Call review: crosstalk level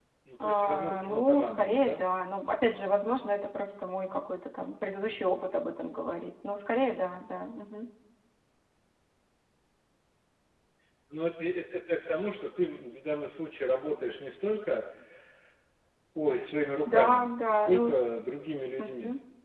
present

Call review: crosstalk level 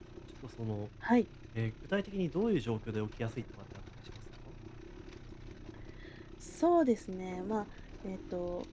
none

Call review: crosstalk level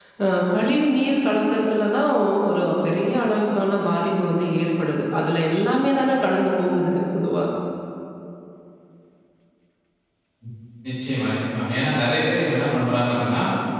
none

